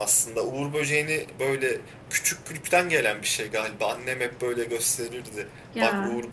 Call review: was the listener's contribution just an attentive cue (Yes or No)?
Yes